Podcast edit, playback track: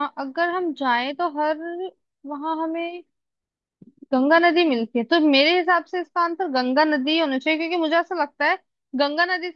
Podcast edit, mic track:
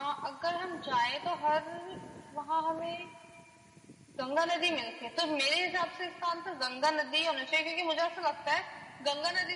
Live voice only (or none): none